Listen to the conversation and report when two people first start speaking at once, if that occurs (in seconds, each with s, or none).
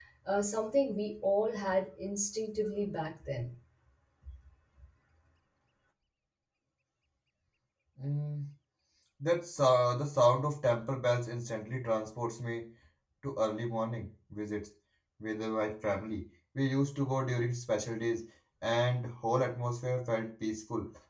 none